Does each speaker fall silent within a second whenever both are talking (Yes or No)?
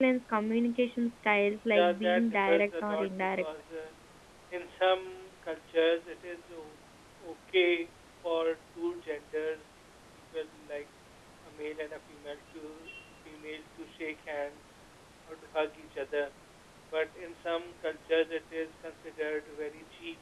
No